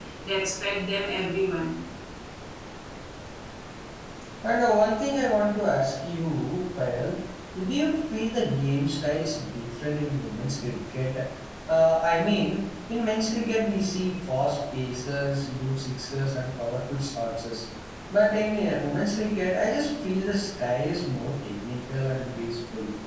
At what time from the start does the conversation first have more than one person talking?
none

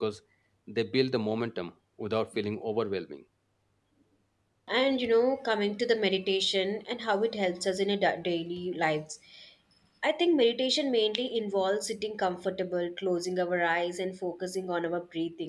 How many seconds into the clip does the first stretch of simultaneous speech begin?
none

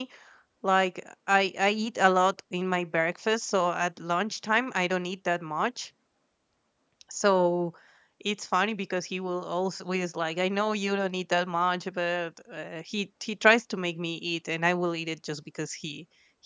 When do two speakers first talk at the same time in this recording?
none

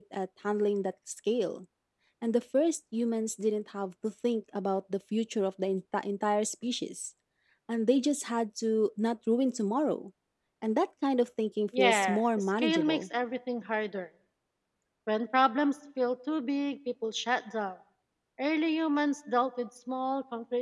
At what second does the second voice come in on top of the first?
12 s

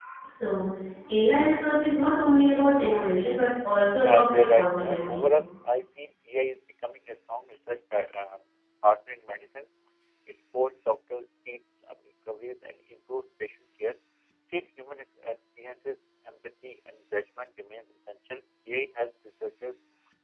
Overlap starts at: 4 s

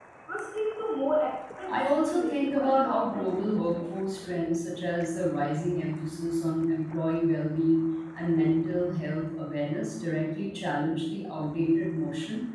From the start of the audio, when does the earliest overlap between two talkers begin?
2 s

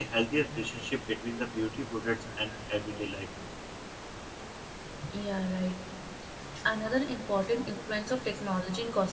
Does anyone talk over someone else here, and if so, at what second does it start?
none

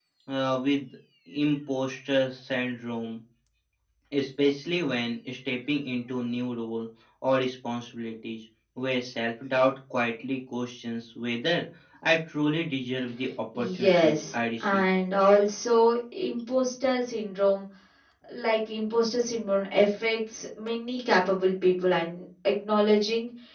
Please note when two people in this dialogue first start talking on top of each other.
14 s

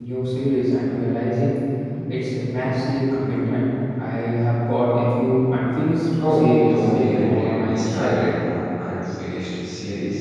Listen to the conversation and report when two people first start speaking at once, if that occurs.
6 s

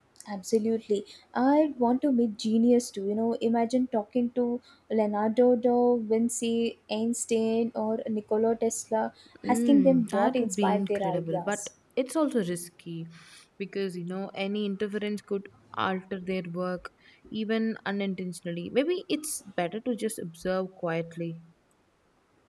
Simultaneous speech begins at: 9 s

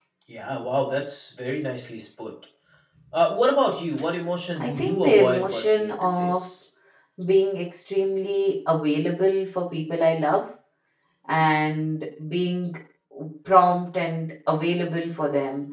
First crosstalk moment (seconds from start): 5 s

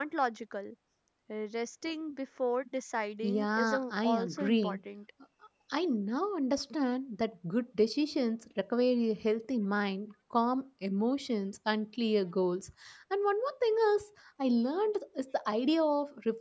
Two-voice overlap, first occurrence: 3 s

